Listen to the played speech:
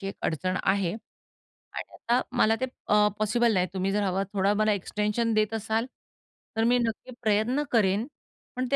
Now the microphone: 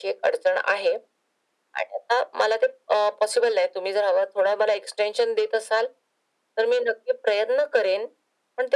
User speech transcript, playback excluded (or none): none